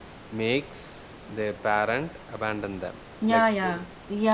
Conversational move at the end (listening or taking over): taking over